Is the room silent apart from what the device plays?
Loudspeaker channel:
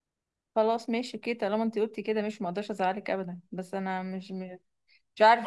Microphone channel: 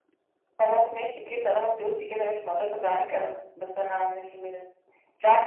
Yes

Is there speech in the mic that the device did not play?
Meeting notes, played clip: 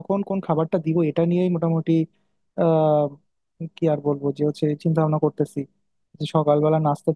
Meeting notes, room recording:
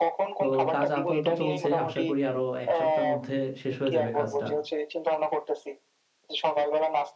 Yes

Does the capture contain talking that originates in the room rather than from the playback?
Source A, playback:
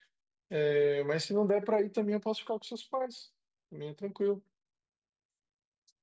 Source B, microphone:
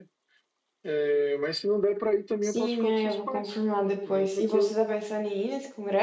Yes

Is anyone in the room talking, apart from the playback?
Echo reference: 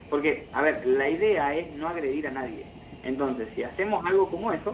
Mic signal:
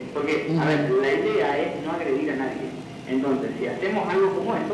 Yes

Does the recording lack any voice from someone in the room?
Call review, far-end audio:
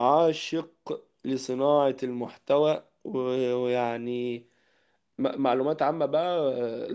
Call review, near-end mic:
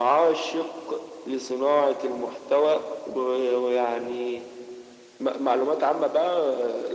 Yes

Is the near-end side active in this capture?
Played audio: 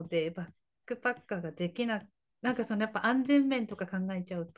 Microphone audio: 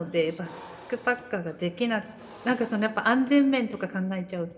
No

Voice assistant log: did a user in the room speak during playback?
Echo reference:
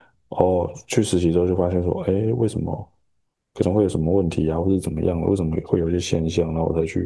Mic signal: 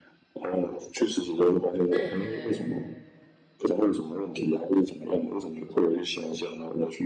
Yes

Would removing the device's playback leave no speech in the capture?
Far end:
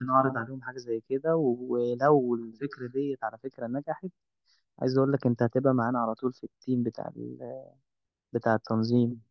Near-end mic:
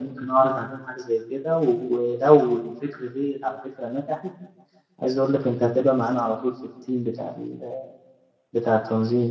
Yes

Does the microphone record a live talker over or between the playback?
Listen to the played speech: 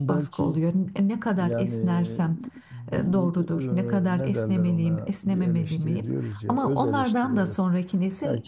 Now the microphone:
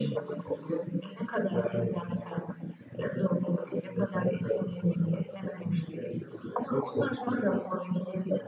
No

